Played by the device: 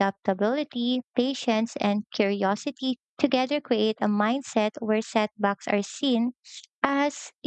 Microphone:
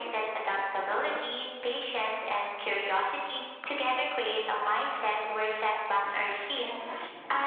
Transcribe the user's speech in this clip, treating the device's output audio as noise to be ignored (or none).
none